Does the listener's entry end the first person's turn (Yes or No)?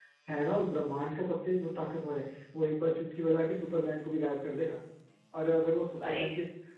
No